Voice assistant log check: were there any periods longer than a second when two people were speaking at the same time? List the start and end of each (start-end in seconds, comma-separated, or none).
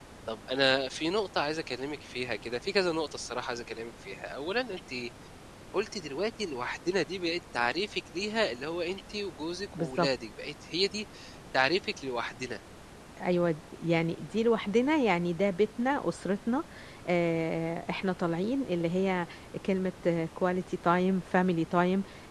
none